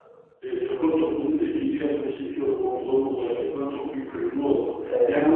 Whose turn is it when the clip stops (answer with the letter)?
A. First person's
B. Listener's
A